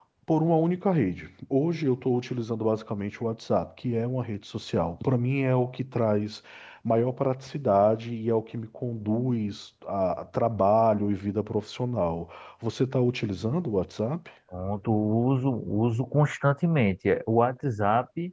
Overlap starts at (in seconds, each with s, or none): none